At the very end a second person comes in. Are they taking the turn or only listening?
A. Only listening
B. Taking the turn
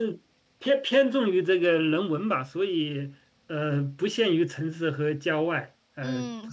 B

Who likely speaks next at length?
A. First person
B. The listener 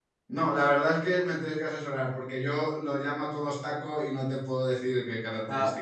B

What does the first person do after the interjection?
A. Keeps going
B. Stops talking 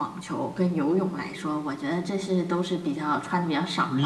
B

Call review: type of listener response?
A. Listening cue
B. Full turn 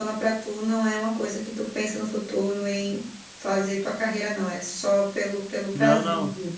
B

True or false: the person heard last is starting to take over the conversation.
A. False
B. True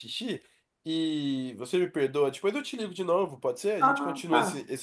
B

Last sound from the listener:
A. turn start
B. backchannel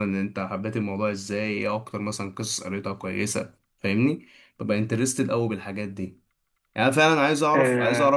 B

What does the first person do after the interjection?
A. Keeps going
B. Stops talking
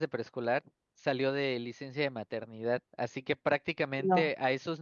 A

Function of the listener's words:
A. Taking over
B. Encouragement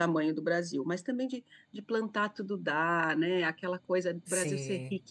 B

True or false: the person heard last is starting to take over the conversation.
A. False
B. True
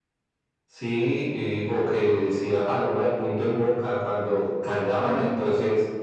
A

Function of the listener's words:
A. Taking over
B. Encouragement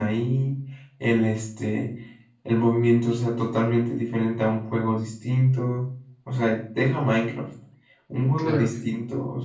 B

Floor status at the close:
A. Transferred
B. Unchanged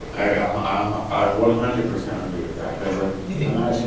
B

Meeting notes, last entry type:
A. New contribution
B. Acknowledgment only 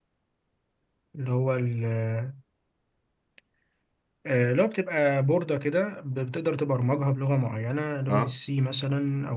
B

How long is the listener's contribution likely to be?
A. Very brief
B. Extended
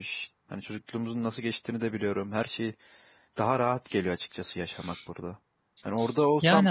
A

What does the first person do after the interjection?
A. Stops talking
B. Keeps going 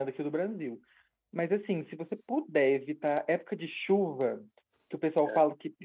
B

